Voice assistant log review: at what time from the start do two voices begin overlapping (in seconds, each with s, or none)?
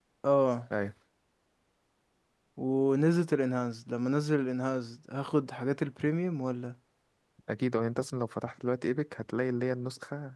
none